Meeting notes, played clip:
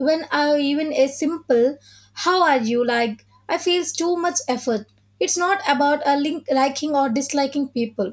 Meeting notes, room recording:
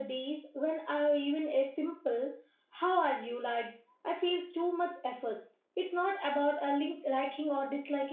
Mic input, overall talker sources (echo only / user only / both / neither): echo only